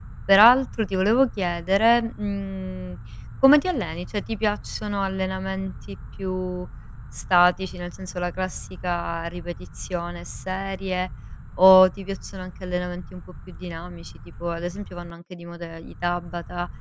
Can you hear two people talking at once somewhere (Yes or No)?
No